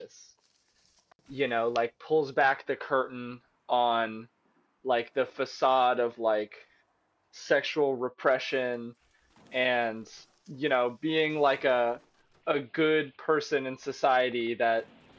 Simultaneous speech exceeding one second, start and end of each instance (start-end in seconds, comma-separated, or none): none